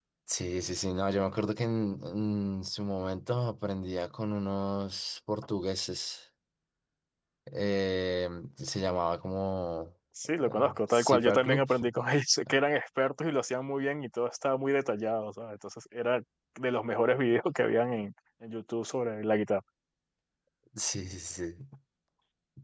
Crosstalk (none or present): present